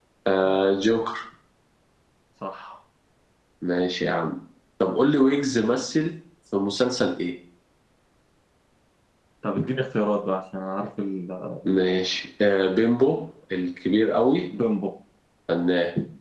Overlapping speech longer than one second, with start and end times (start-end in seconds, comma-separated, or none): none